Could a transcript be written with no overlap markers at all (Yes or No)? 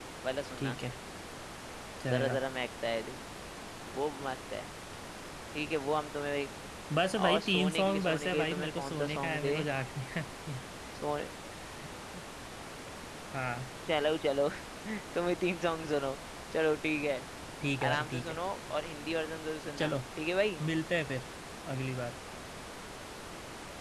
No